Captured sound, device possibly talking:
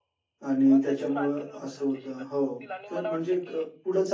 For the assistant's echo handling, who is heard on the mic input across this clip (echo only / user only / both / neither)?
both